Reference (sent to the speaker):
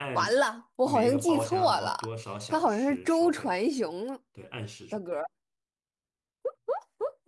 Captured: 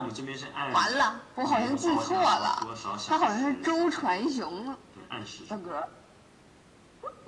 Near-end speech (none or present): none